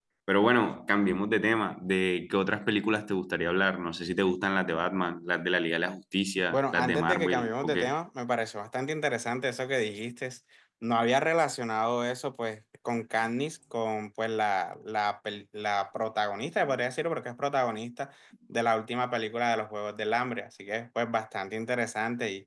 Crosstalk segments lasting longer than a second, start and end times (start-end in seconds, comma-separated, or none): 6.5-7.9